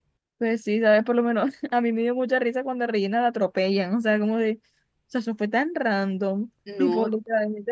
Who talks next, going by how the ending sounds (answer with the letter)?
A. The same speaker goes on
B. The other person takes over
A